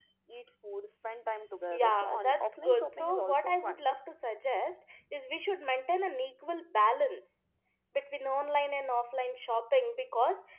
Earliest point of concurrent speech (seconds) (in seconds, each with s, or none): 1.7 s